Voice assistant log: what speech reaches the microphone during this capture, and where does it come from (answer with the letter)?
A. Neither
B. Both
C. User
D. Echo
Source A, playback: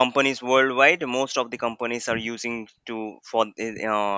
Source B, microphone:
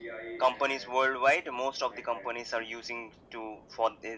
B